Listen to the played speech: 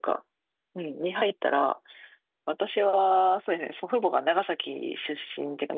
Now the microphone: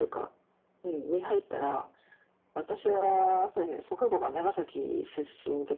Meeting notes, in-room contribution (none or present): none